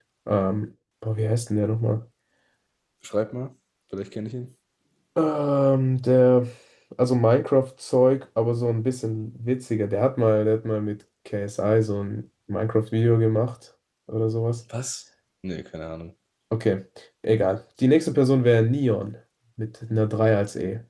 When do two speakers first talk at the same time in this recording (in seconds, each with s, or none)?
none